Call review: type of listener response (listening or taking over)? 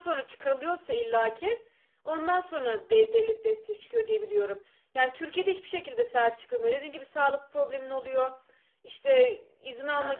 listening